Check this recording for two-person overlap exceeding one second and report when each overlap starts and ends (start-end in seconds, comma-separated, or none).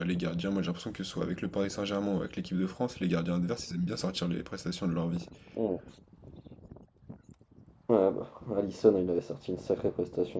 none